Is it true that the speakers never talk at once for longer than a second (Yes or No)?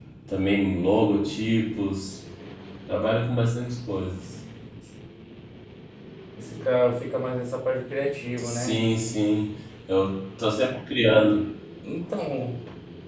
Yes